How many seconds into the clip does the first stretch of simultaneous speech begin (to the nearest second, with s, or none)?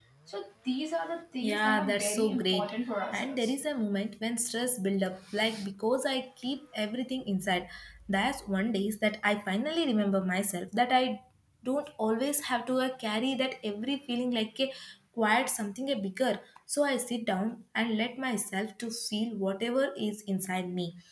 1 s